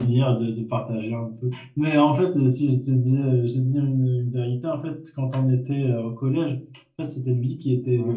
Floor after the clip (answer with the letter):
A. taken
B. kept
B